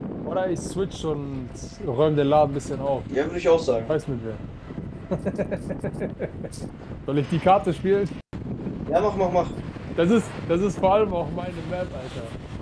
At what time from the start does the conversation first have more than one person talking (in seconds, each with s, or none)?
none